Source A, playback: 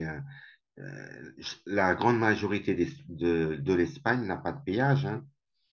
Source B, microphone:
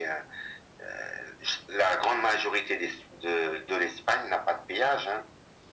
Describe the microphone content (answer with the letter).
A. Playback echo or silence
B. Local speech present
A